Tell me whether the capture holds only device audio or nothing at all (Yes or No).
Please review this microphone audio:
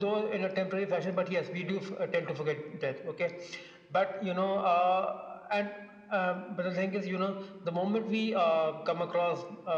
Yes